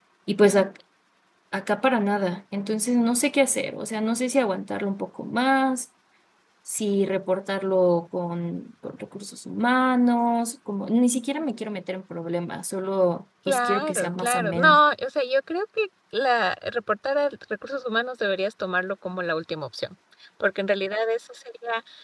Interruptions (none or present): present